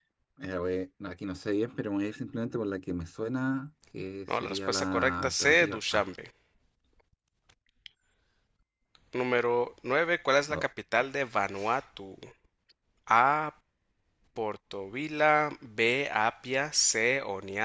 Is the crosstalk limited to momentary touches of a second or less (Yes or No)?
No